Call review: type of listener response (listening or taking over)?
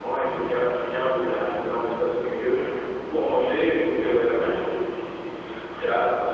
taking over